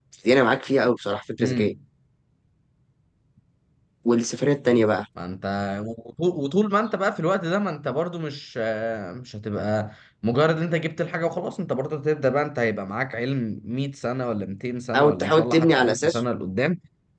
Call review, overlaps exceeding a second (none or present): present